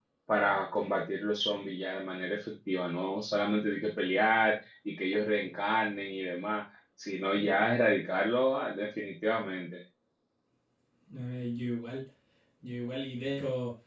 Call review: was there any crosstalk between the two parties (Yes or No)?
No